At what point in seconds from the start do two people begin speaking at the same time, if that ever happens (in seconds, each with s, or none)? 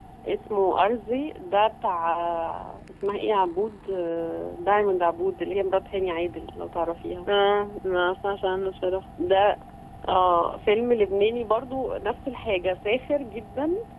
none